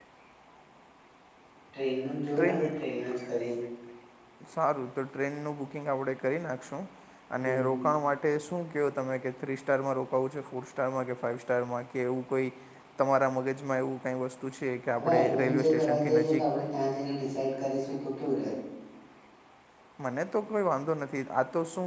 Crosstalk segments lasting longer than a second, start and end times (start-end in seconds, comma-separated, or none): 15.0-16.4